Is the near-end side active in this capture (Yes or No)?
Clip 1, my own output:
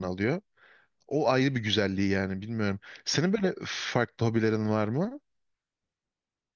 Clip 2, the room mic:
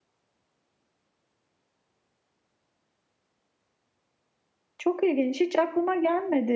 Yes